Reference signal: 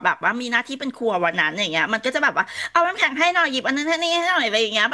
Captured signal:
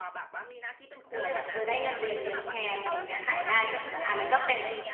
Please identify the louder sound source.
user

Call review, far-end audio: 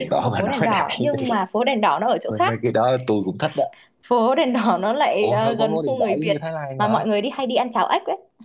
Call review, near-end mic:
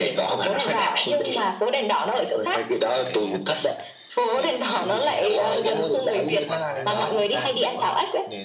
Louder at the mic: echo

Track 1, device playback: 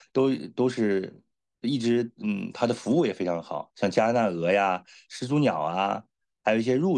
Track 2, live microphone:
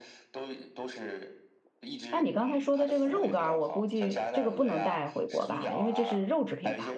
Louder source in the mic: user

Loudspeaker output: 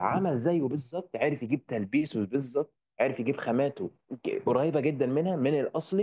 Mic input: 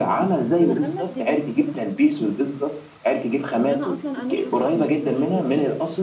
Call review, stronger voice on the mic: echo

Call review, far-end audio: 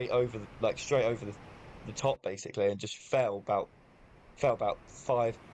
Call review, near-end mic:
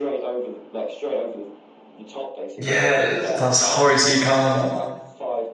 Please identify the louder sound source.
user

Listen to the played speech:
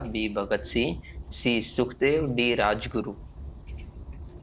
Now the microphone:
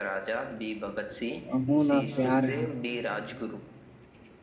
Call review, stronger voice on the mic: user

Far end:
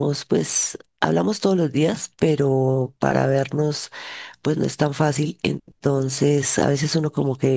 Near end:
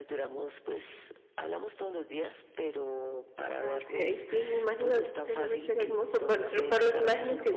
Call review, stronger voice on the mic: user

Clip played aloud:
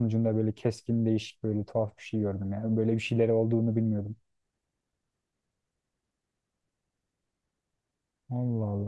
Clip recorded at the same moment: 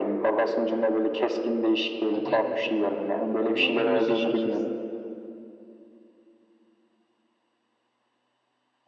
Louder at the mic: echo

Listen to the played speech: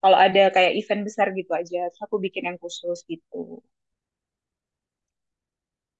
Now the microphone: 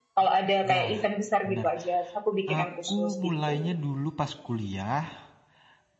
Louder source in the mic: echo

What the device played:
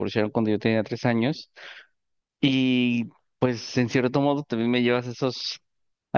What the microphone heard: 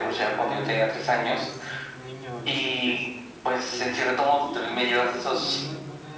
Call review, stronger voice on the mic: echo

